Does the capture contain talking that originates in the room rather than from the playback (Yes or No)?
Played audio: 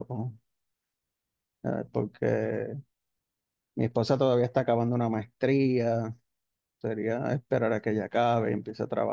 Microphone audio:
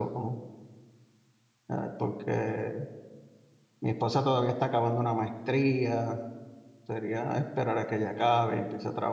No